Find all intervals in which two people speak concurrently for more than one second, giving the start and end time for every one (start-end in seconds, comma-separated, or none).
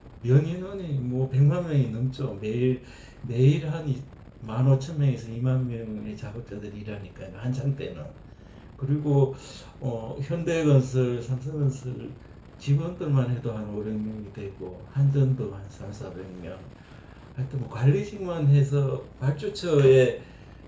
none